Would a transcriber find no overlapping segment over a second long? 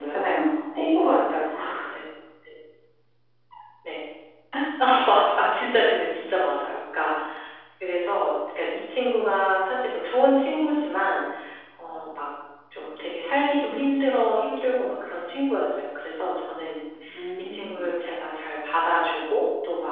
Yes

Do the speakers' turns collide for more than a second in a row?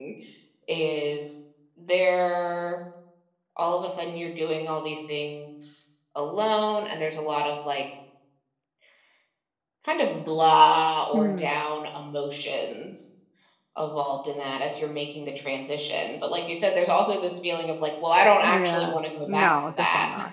Yes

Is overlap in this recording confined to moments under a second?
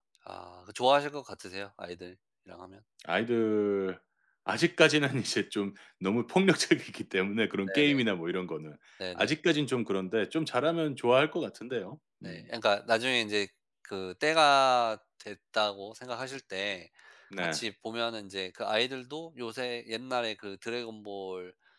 Yes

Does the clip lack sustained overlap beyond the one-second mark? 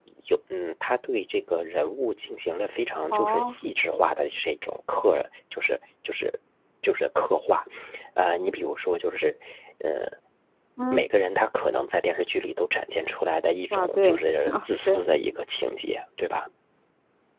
No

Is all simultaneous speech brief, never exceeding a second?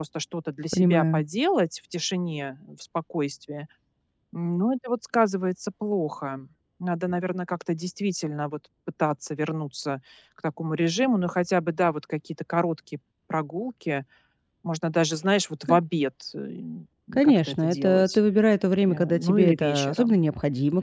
No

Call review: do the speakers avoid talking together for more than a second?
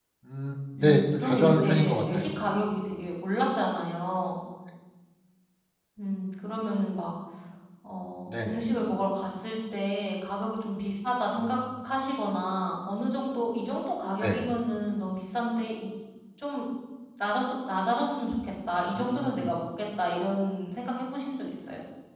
No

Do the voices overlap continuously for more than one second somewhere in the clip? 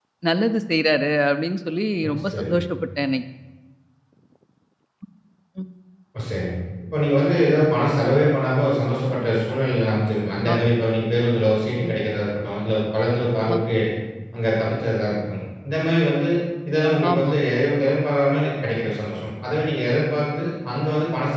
No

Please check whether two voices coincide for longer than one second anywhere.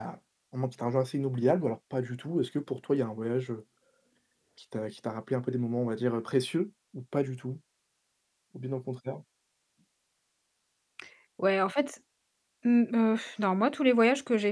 No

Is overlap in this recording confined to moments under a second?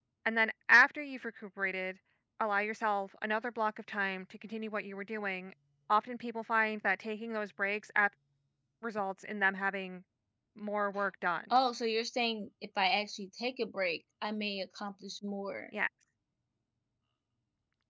Yes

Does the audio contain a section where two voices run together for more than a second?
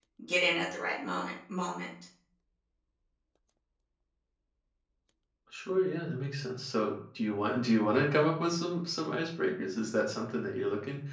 No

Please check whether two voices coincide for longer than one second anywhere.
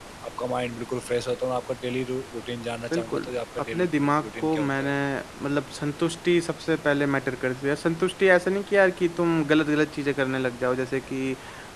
Yes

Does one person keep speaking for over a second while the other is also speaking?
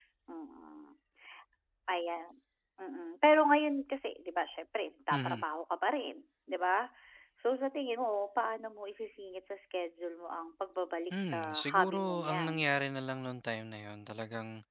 Yes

